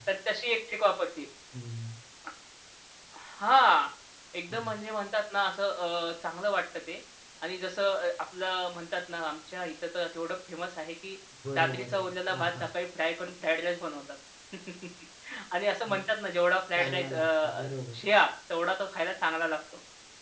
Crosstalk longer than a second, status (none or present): present